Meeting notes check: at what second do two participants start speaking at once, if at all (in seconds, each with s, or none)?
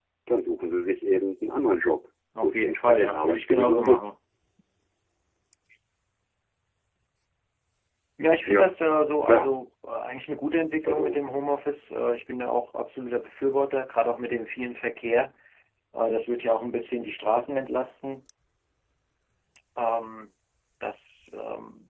2.4 s